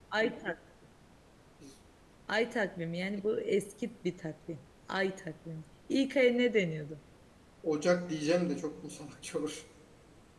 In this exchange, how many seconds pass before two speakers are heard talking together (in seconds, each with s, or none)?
none